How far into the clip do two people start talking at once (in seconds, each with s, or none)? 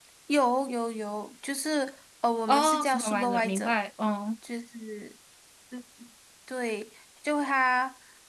2.5 s